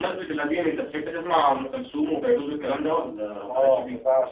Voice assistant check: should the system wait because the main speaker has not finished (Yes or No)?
No